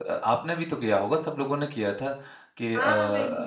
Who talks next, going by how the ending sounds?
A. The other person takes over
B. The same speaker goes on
B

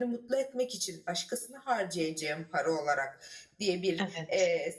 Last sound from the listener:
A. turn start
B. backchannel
B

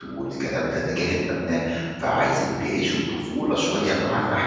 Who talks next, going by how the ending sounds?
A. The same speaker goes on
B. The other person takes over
A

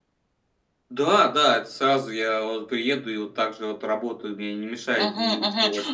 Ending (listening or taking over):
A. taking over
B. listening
A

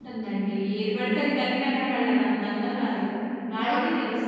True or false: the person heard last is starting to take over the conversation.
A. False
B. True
A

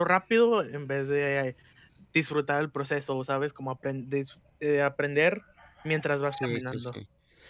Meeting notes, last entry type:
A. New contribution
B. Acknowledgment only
A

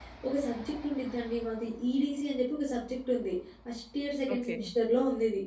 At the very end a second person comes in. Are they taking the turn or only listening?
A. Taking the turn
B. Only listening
B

